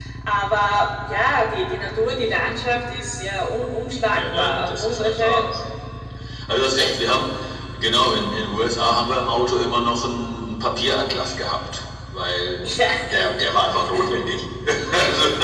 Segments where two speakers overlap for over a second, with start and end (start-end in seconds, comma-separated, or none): 4.1-5.5